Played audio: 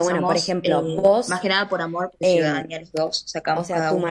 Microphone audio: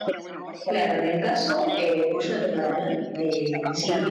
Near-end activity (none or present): present